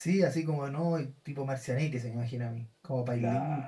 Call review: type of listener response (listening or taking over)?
taking over